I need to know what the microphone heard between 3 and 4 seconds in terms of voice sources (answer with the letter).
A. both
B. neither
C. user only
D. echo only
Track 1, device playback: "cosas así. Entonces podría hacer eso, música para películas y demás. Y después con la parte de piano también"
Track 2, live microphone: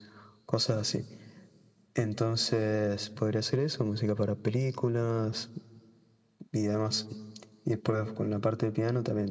D